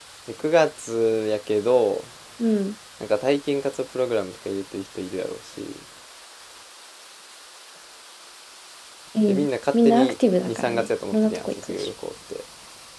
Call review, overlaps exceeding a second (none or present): present